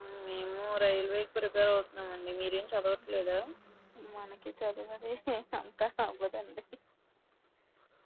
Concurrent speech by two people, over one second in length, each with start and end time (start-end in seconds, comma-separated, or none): none